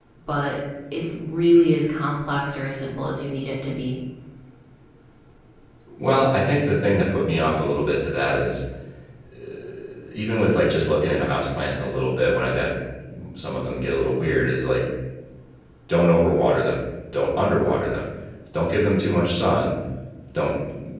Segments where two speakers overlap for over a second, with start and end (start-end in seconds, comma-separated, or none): none